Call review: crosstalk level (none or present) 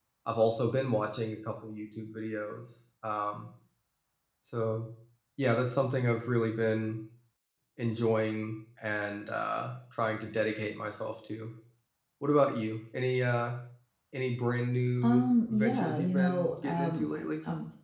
present